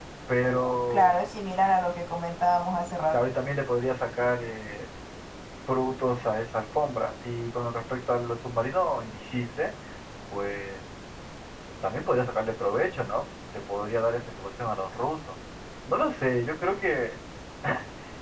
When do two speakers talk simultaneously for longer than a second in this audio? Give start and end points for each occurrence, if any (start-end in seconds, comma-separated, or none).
none